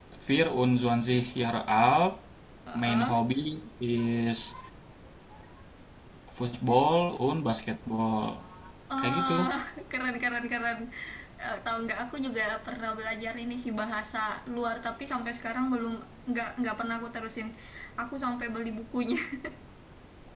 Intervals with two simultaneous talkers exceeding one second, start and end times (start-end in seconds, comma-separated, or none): none